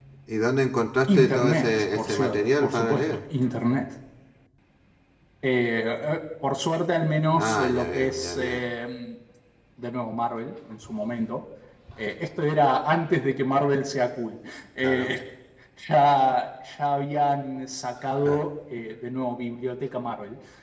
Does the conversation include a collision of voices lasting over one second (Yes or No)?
Yes